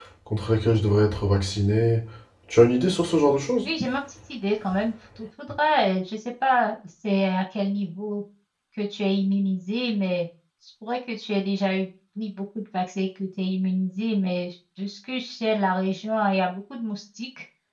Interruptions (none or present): none